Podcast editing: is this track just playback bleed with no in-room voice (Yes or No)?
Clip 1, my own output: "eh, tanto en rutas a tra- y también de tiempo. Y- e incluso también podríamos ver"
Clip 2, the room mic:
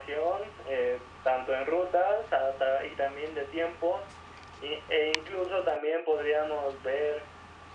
Yes